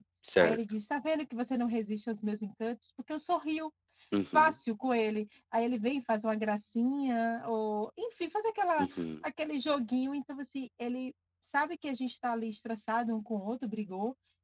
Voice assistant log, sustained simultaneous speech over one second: none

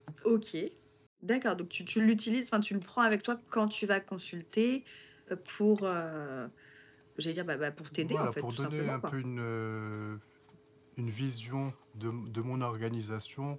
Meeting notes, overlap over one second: present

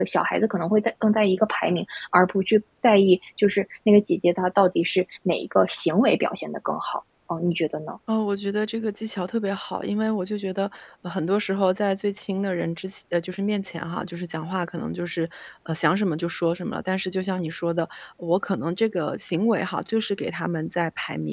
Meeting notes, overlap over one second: none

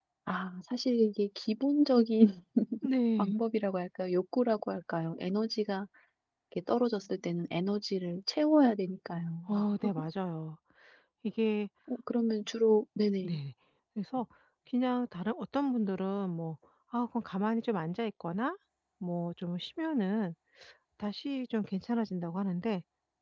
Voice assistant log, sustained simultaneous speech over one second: none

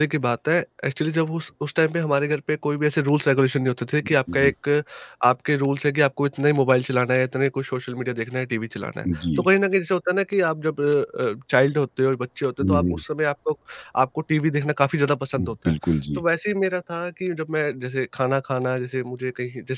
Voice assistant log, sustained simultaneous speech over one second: none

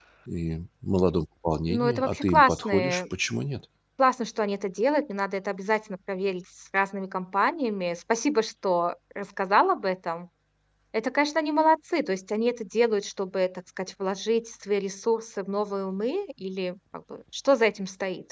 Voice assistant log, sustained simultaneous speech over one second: present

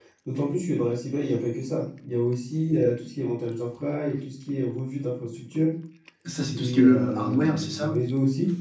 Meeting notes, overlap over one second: present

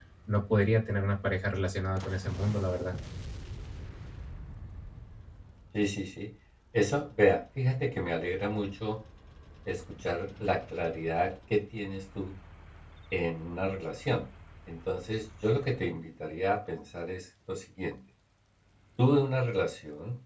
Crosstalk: none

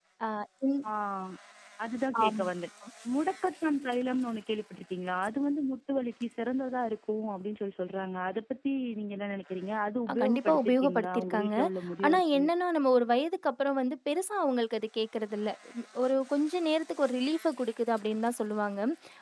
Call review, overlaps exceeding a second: present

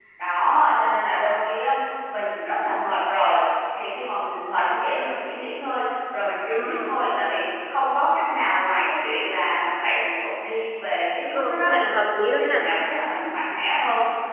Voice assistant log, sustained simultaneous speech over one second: none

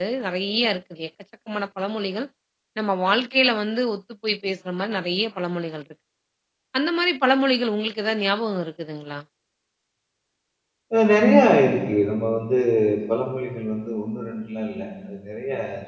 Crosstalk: none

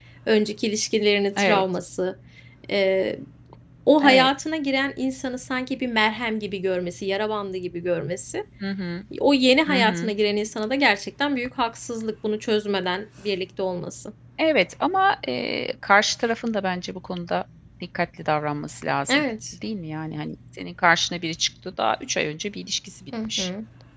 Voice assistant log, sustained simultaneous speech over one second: none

